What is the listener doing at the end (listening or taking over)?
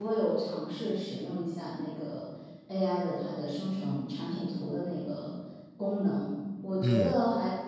listening